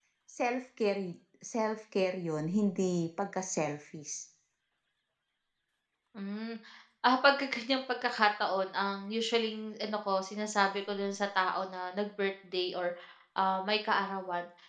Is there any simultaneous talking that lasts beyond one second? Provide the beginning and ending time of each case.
none

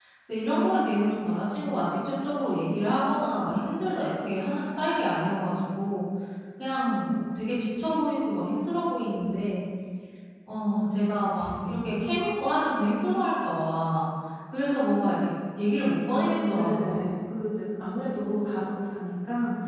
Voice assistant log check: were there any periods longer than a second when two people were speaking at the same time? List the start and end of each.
15.9-17.1

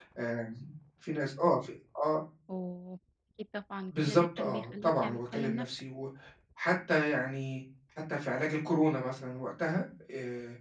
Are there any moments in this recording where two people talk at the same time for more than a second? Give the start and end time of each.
3.9-5.7

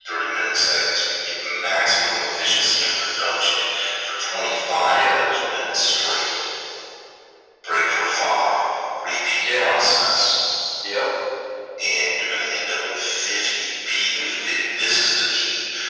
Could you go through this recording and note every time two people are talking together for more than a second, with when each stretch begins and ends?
none

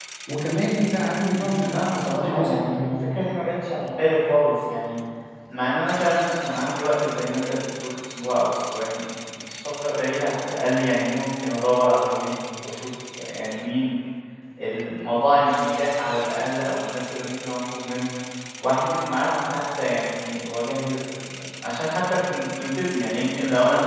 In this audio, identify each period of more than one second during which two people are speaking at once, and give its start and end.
1.3-2.8

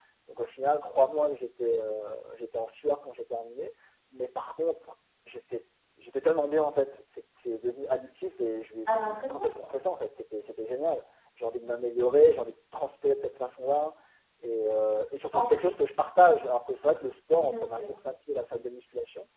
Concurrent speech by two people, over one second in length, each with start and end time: none

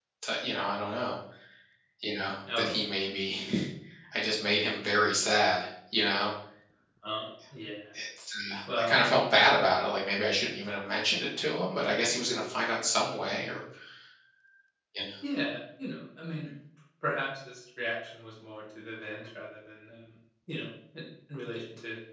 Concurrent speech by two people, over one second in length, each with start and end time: none

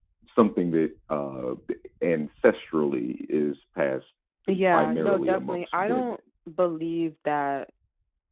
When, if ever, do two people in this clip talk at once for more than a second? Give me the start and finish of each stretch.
4.6-6.1

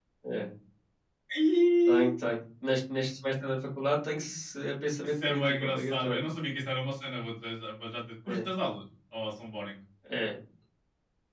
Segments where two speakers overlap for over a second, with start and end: 5.0-6.2

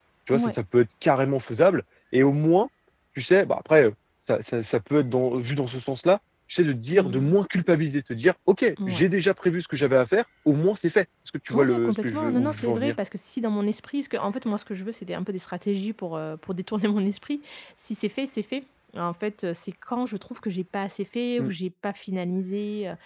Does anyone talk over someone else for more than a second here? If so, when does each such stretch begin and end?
11.5-13.0

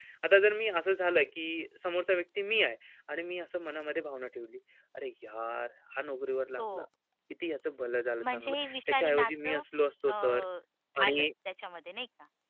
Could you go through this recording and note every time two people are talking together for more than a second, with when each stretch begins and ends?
8.2-9.6

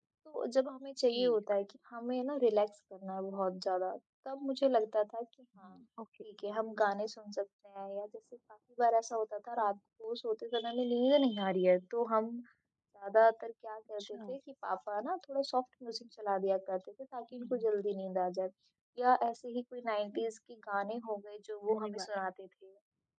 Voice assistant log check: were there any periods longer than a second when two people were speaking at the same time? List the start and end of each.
none

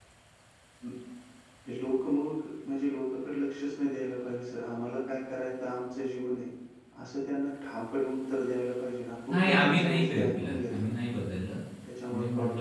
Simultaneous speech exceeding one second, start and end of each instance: 9.3-10.9

